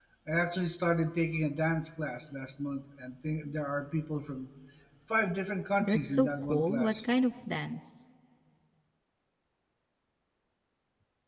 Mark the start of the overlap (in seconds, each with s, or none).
5.8 s